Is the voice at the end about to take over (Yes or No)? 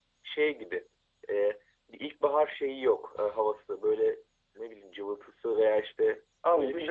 Yes